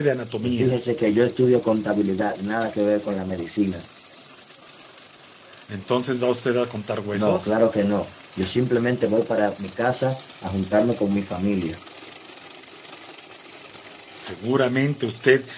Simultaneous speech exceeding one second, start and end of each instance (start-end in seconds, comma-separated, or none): none